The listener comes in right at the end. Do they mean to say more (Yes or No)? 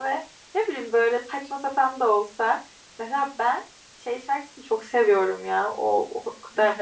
No